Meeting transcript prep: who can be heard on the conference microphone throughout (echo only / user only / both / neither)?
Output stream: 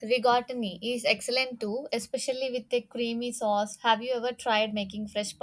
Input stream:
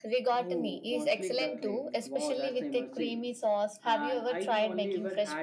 both